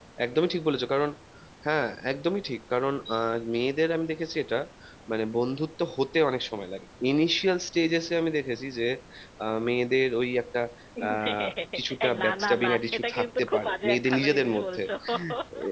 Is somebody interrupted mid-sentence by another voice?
Yes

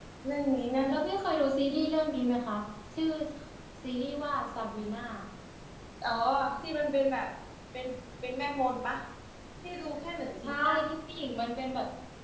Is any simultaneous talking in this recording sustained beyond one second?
No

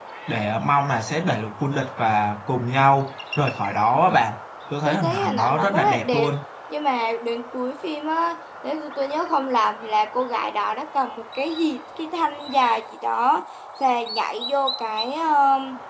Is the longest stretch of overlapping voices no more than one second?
No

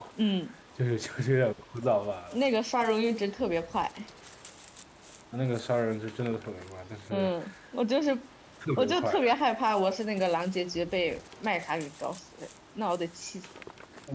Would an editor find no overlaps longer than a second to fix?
Yes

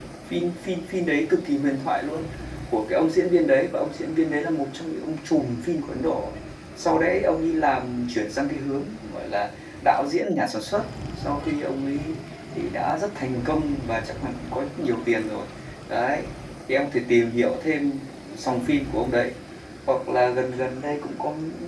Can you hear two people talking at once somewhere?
No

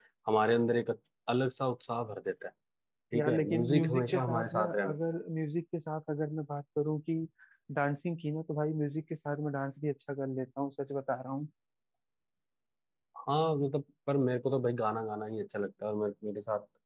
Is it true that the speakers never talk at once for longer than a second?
No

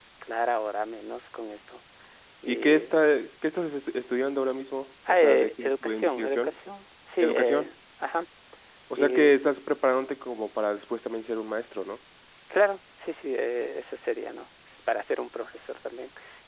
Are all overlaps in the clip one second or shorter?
No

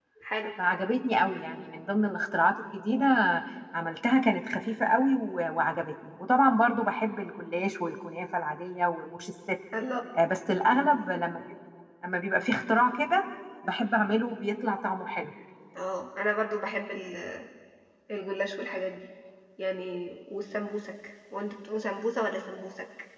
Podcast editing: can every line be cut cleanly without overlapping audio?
Yes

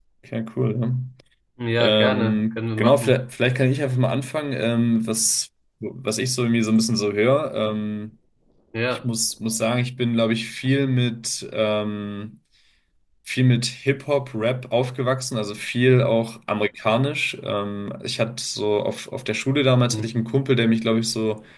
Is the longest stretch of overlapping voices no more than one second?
No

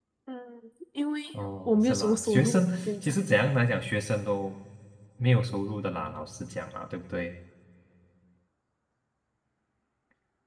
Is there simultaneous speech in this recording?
Yes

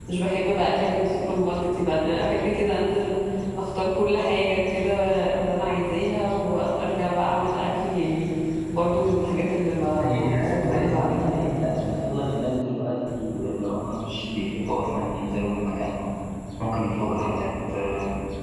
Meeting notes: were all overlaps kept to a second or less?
No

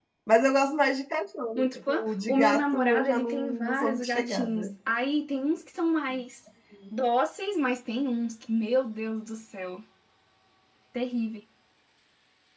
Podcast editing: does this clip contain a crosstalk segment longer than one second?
Yes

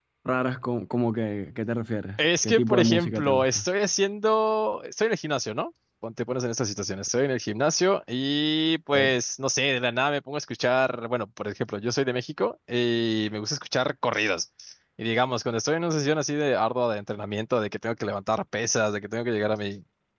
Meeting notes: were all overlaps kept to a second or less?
No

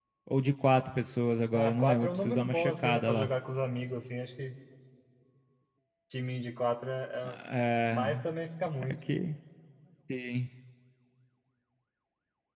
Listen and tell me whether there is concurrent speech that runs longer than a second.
Yes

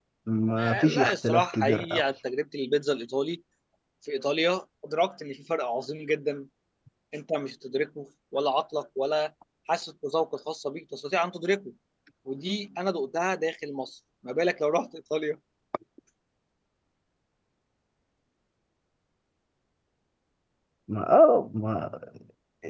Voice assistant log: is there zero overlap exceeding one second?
No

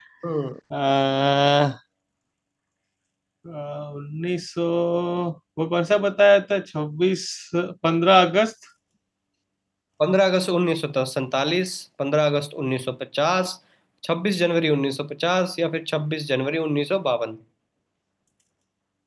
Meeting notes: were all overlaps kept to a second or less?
Yes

